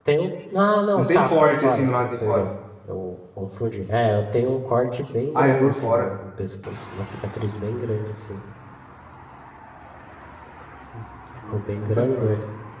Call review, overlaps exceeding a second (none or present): present